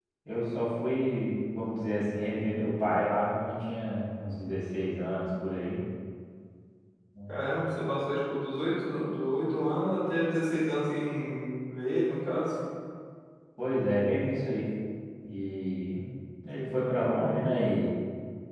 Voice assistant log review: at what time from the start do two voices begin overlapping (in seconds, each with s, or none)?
none